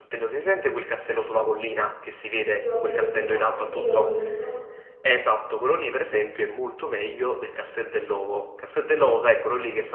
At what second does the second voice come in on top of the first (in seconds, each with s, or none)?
2.5 s